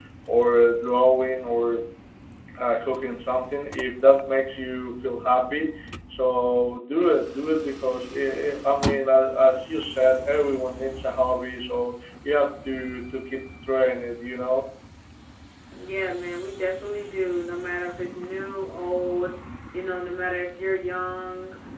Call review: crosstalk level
none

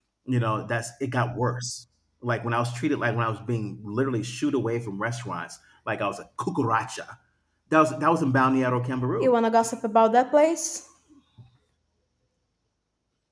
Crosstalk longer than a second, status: none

